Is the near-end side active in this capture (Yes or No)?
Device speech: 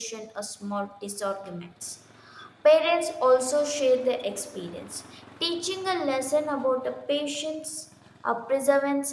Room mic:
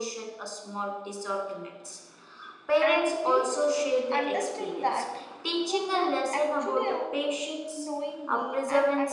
Yes